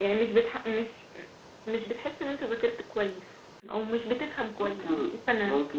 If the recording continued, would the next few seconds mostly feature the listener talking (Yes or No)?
Yes